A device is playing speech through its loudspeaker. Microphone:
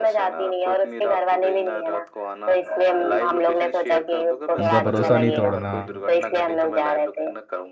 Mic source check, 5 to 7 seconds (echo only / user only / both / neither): both